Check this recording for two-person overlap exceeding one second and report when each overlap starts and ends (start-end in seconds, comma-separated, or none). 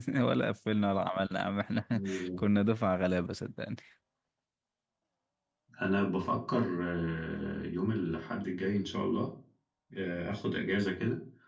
none